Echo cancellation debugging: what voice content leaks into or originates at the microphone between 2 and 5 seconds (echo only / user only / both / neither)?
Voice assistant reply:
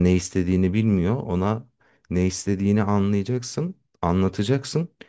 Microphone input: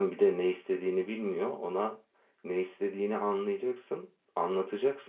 echo only